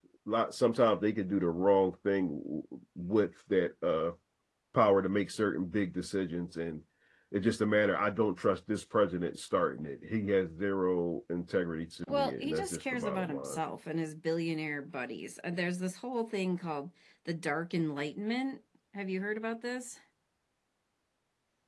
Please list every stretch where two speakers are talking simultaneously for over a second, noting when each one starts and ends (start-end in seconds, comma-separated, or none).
12.1-13.6